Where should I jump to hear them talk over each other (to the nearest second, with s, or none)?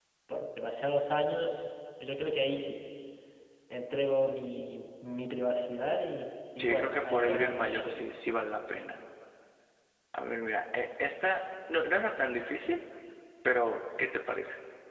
7 s